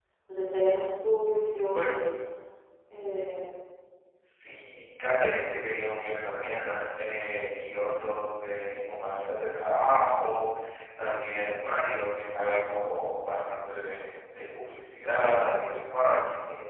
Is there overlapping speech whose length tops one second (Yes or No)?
No